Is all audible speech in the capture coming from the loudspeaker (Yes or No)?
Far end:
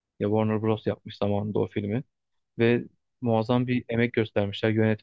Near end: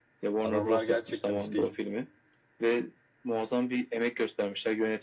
No